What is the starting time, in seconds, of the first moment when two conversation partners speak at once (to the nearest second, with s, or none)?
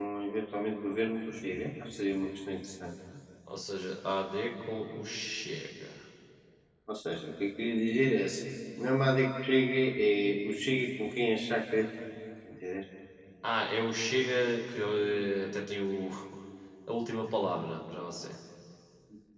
none